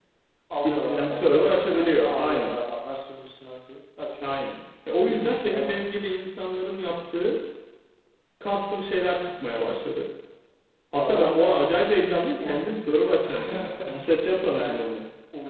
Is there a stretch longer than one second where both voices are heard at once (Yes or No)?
Yes